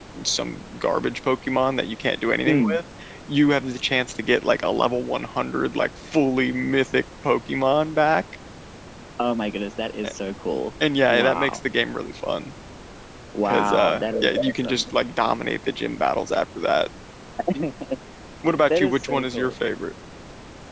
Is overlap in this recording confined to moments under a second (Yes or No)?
No